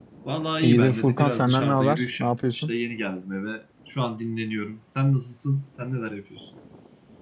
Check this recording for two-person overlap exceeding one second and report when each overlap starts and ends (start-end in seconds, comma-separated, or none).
0.6-2.7